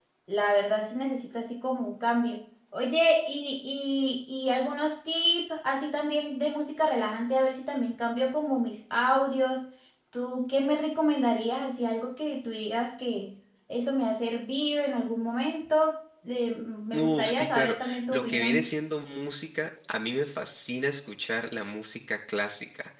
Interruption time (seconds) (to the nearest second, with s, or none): 17 s